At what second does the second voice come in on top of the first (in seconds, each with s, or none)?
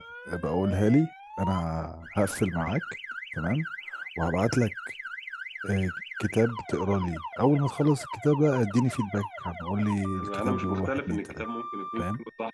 10.2 s